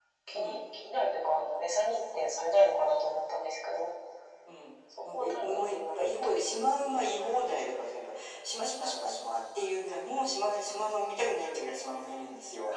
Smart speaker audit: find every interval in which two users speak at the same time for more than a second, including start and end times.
5.1-6.3

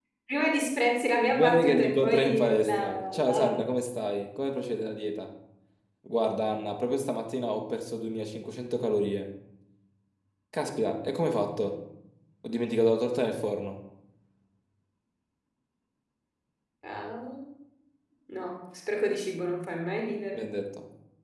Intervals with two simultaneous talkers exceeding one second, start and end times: 1.3-3.6

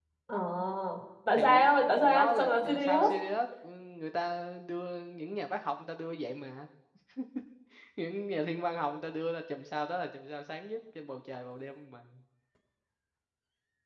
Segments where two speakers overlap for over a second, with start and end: 1.4-3.1

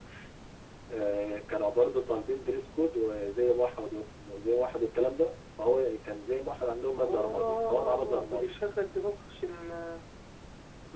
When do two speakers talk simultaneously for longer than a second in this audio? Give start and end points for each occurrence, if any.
7.0-8.6

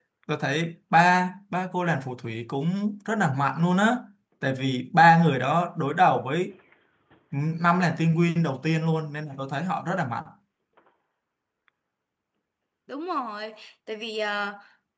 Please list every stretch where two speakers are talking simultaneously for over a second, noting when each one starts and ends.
none

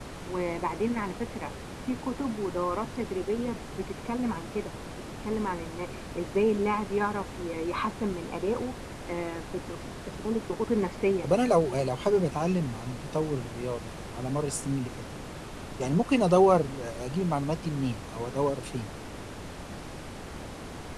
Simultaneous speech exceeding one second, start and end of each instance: none

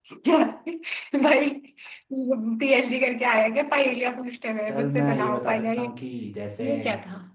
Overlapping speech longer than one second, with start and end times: 4.7-5.9

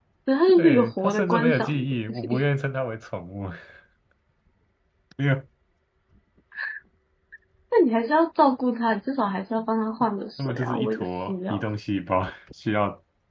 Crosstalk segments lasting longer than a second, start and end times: 0.5-2.4, 10.4-11.6

